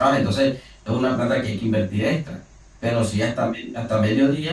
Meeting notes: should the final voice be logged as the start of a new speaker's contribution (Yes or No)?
No